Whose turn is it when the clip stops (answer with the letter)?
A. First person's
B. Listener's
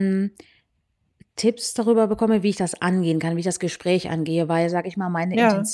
A